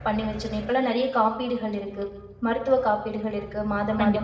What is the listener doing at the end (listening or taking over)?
listening